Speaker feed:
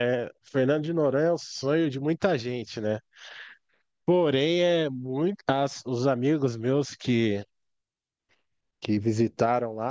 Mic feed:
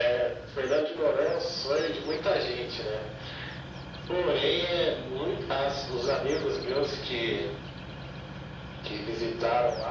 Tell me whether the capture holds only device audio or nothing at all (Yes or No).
Yes